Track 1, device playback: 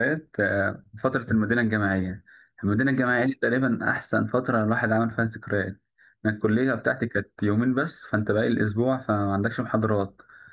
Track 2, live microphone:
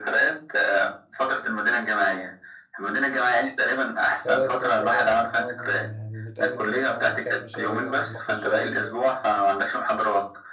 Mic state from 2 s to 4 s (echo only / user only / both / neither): echo only